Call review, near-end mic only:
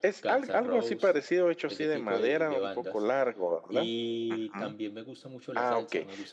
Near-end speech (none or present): none